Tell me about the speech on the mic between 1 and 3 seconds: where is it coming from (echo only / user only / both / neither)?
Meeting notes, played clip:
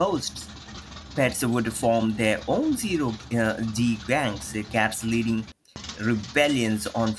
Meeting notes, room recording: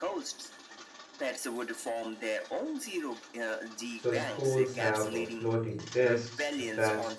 echo only